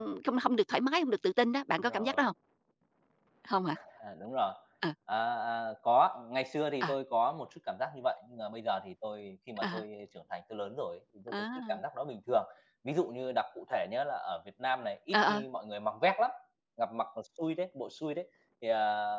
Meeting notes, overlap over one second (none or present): none